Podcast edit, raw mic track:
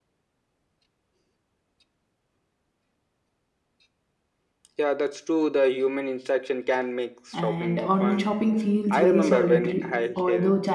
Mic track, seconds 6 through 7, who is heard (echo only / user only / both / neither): echo only